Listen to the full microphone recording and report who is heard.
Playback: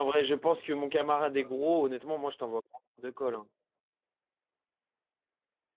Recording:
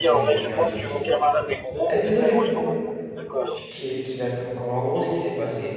both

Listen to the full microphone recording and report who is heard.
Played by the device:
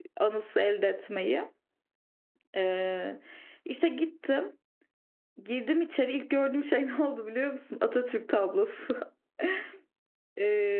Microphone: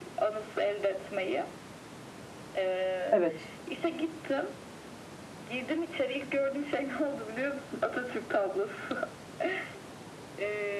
both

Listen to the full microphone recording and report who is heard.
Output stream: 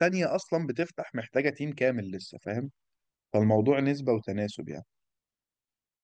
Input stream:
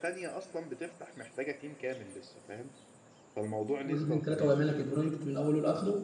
both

